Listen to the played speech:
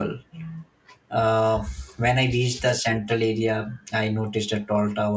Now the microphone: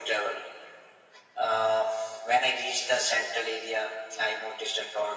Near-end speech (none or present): none